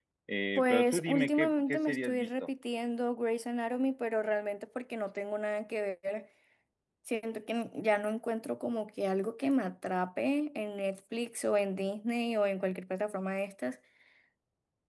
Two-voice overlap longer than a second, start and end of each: 0.6-2.5

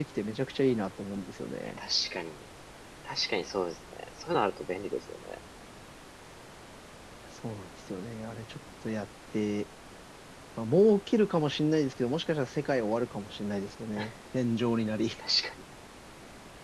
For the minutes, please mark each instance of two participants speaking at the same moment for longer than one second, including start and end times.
none

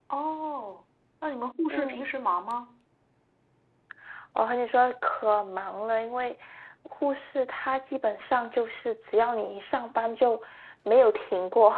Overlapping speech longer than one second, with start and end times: none

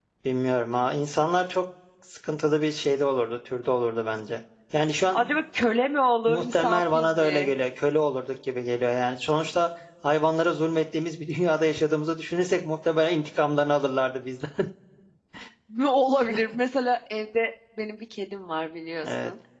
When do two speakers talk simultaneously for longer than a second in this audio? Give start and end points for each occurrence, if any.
6.3-7.5

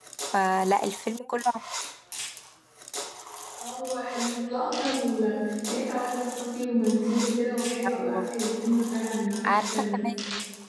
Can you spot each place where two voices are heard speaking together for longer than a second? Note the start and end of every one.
none

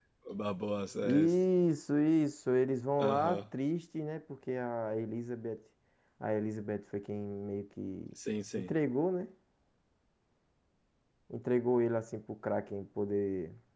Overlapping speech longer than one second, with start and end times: none

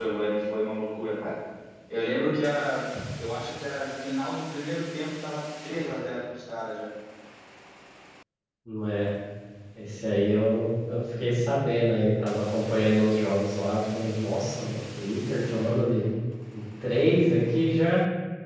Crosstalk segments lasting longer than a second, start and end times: none

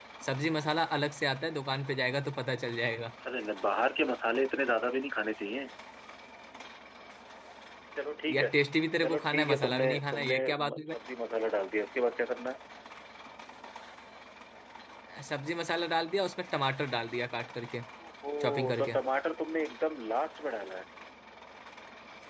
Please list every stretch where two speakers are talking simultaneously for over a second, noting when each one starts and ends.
9.0-10.9

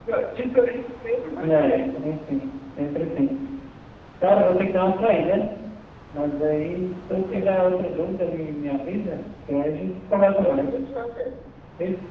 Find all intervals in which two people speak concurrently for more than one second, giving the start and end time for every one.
none

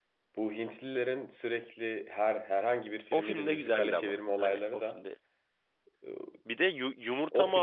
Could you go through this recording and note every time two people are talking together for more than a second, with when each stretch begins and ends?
3.1-5.0

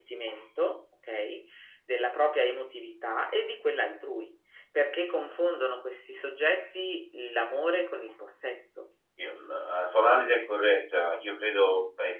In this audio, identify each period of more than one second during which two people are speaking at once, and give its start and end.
none

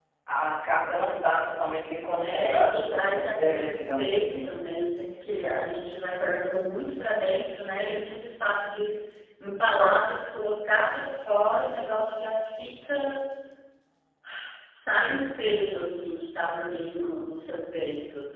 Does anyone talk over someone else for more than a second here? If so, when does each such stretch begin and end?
2.2-4.5

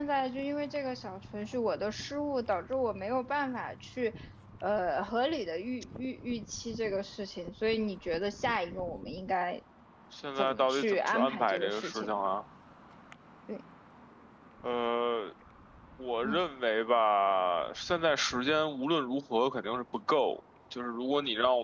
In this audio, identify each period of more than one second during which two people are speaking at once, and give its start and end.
10.4-12.3

